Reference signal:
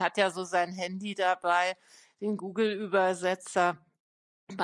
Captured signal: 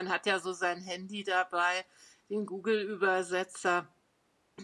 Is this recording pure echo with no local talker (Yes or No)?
Yes